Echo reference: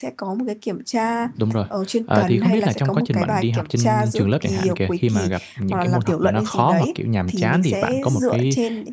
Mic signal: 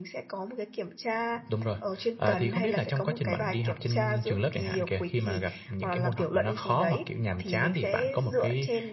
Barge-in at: none

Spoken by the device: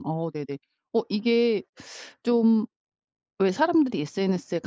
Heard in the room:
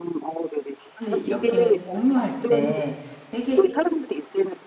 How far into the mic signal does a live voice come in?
0.9 s

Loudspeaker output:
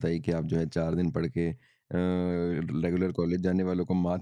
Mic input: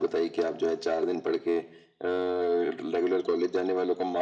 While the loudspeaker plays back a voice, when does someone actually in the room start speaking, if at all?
none

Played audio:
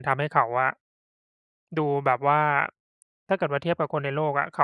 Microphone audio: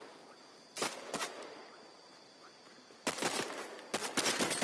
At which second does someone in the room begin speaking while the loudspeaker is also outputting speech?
none

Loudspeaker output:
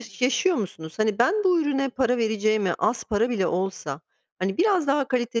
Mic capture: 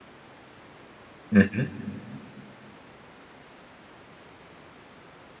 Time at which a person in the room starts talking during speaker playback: 1.3 s

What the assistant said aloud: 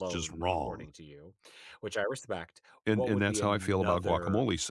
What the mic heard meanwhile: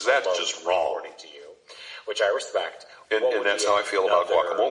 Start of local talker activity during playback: none

